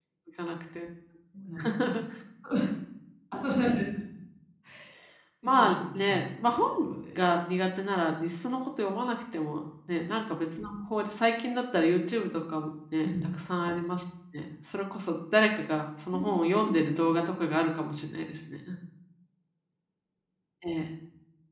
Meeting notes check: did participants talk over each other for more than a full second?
Yes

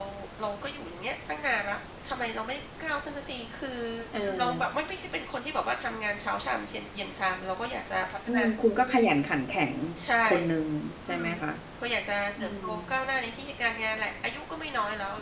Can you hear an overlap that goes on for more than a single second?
No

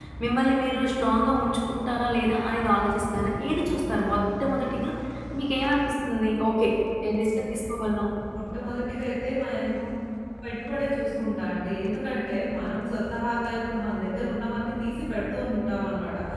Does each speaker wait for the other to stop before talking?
Yes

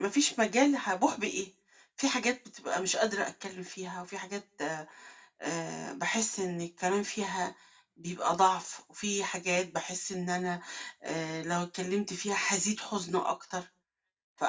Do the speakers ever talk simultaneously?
No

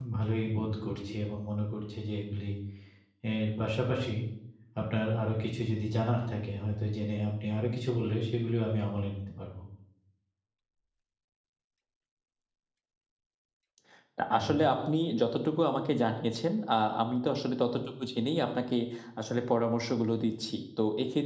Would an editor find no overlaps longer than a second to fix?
Yes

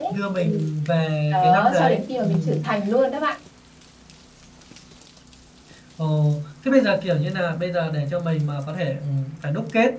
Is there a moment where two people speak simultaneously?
Yes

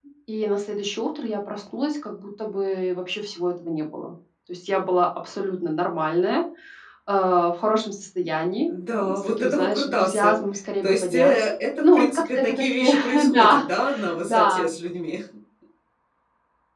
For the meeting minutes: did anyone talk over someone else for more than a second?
Yes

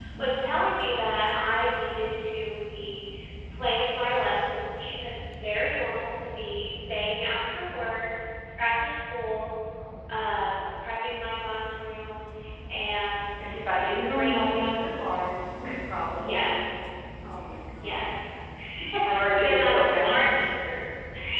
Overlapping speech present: Yes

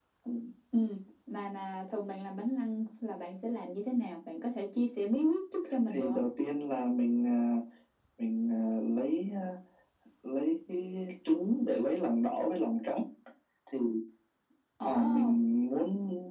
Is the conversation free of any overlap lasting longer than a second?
Yes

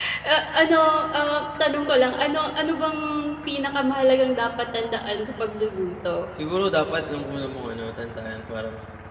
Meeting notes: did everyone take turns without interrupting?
Yes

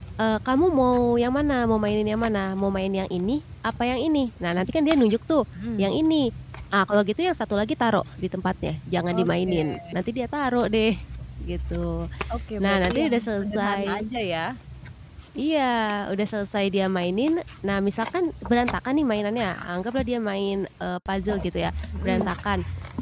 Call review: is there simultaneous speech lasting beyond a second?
Yes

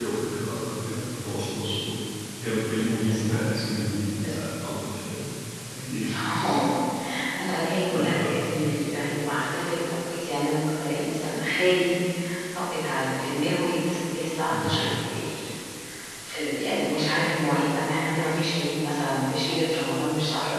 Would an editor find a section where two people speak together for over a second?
No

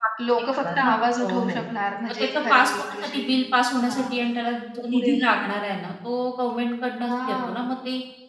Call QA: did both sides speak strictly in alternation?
No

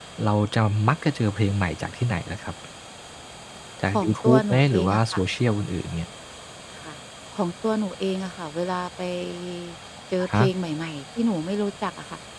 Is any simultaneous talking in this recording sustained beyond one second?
Yes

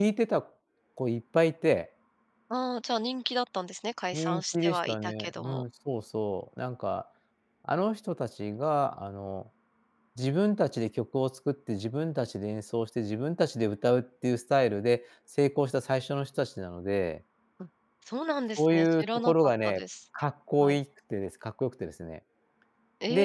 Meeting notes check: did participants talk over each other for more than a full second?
Yes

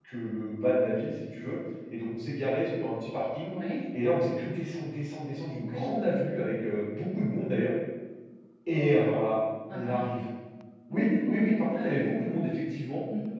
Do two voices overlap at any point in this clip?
Yes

